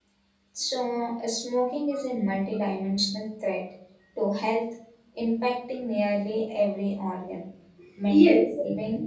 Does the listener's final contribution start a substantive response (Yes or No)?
Yes